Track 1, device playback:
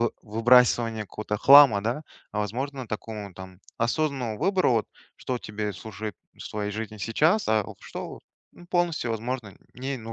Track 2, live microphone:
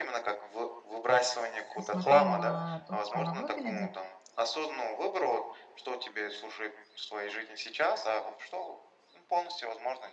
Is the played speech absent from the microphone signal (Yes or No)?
No